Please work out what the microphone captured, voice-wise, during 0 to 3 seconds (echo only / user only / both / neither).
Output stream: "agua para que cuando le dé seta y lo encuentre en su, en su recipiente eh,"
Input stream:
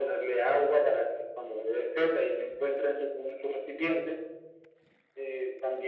echo only